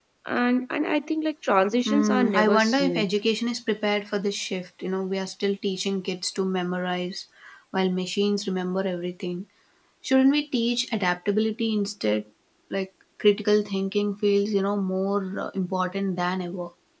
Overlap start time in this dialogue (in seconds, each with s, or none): 1.9 s